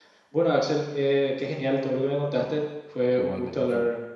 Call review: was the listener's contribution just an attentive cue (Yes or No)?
Yes